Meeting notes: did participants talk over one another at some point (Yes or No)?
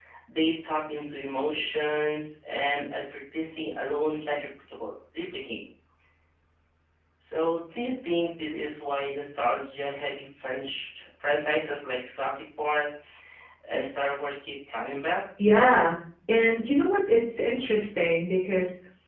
No